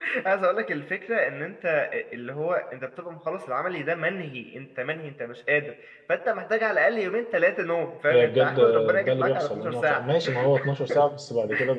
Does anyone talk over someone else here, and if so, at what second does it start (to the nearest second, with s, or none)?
8 s